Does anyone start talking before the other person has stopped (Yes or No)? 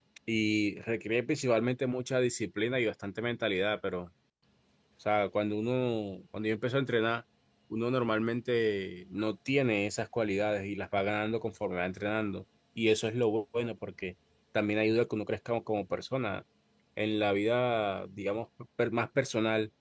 No